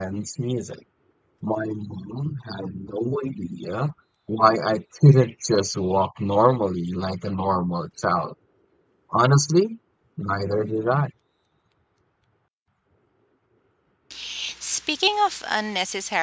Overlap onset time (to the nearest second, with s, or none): none